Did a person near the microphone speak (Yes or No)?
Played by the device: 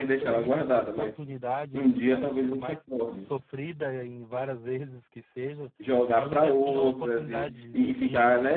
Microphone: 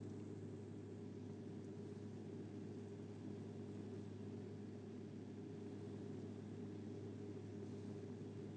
No